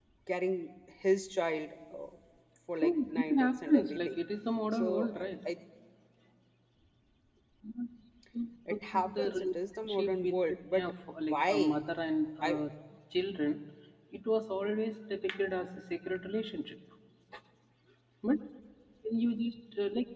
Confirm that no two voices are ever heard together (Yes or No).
No